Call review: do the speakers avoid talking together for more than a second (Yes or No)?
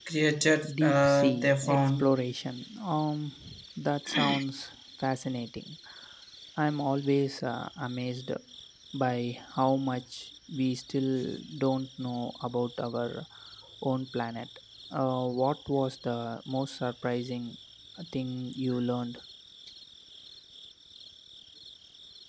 No